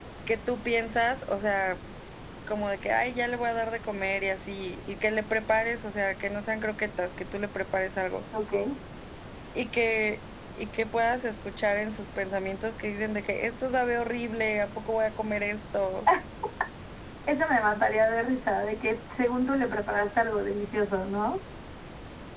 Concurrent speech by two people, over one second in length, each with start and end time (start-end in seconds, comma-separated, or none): none